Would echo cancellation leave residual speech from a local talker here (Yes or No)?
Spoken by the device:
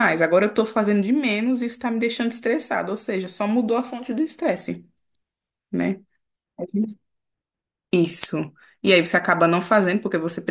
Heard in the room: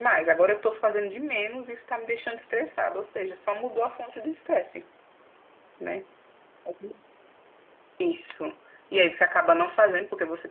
No